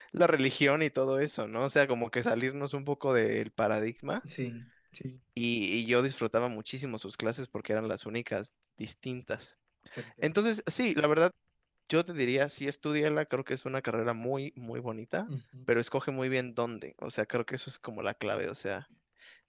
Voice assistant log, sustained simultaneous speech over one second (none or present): none